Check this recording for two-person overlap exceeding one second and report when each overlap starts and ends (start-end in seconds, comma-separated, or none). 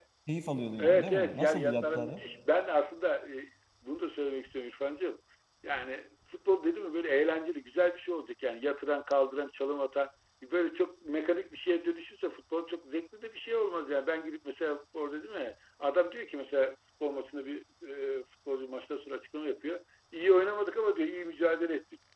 0.8-2.2